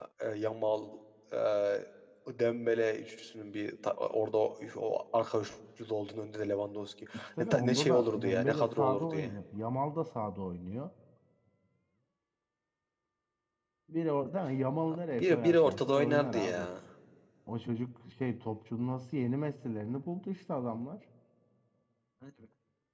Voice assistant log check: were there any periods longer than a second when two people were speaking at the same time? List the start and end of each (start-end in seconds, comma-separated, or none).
7.4-9.4, 15.2-16.7